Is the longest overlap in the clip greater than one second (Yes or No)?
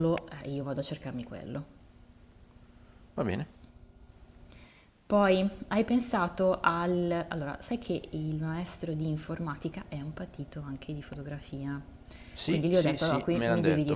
Yes